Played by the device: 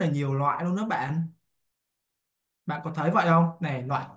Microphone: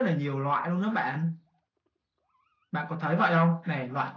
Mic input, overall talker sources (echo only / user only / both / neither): echo only